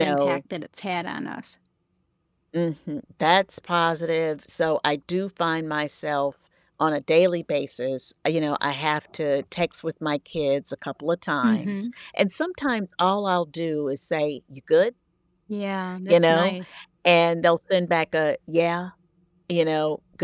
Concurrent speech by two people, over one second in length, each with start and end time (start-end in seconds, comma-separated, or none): none